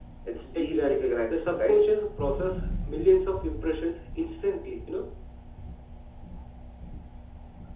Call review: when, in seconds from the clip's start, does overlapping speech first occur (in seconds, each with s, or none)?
0.5 s